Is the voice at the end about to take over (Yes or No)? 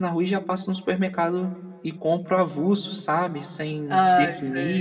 No